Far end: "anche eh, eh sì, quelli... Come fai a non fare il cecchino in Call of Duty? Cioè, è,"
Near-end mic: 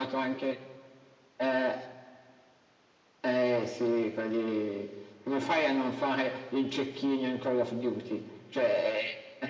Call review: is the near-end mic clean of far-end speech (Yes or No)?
No